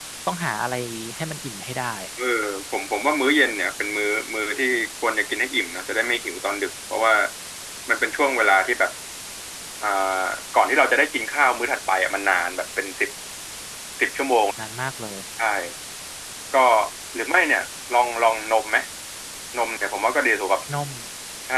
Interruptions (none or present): none